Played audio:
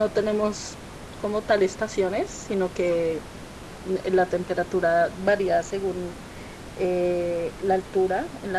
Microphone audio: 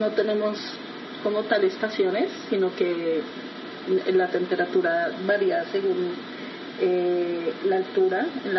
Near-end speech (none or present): none